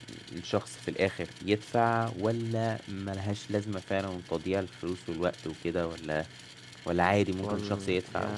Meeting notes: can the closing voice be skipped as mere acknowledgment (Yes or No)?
No